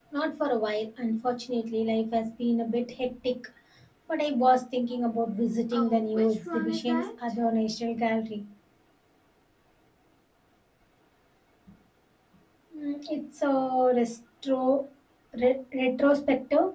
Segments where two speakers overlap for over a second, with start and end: 5.7-7.1

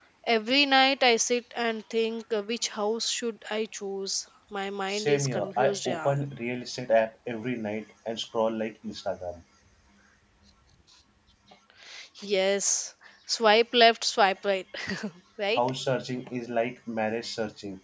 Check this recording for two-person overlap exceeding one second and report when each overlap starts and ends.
4.9-6.2

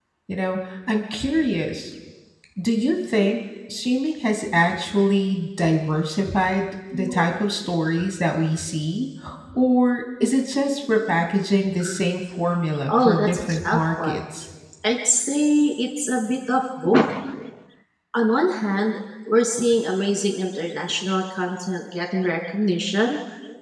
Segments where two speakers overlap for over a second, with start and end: 12.9-14.2

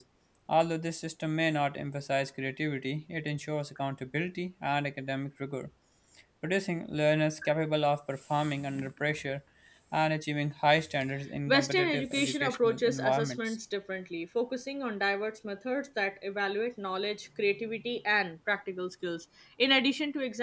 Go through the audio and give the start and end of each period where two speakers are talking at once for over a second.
11.5-13.6

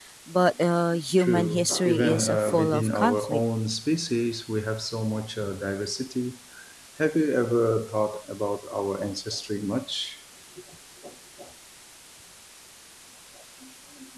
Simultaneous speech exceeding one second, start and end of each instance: 1.2-3.4

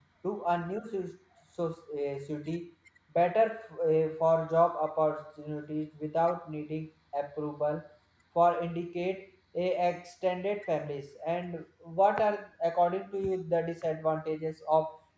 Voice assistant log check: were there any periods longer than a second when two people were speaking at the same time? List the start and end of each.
none

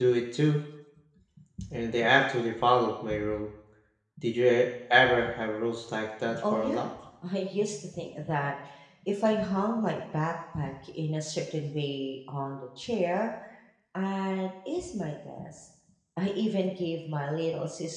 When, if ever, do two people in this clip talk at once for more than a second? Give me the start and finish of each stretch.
none

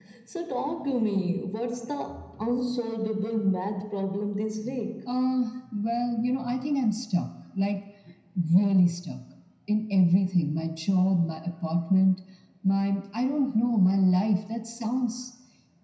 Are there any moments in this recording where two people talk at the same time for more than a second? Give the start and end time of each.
none

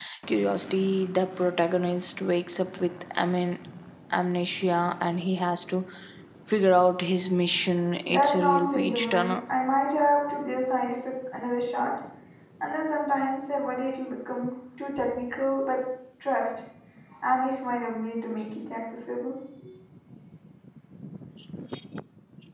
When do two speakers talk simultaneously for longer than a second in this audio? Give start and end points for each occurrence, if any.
8.1-9.4

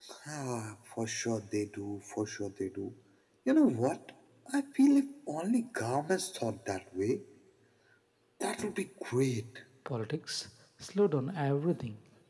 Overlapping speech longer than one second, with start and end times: none

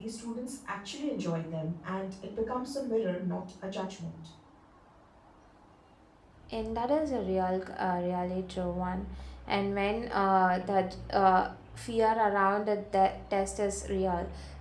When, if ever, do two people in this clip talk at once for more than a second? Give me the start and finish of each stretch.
none

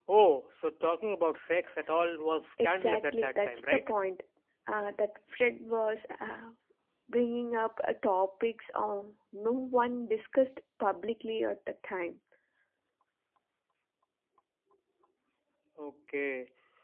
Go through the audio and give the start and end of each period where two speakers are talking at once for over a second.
2.6-3.8

